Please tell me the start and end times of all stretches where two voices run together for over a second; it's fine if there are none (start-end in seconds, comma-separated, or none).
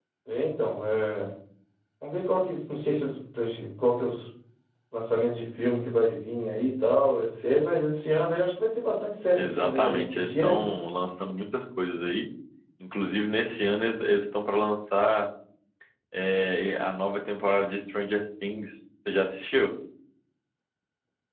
9.4-10.6